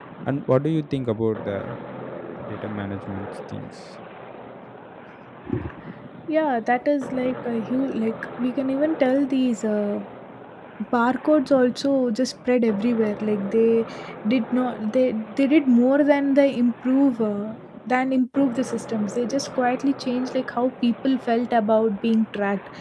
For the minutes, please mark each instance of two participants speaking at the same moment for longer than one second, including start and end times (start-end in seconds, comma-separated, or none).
none